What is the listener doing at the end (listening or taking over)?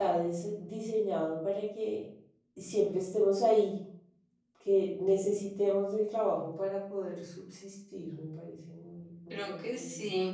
taking over